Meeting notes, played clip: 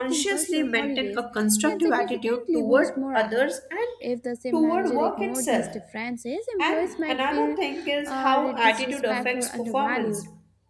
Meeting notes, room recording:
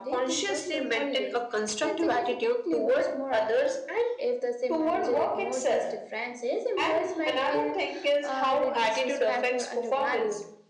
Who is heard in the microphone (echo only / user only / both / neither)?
echo only